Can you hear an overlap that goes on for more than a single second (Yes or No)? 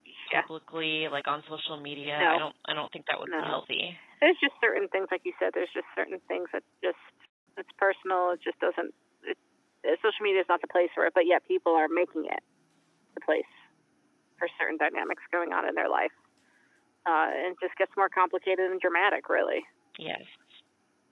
No